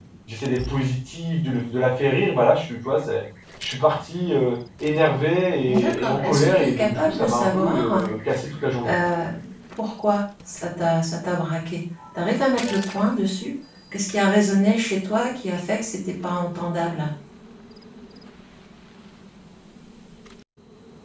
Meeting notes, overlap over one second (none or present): present